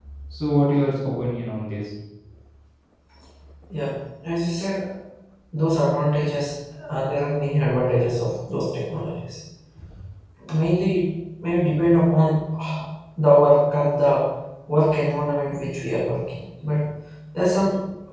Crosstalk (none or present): none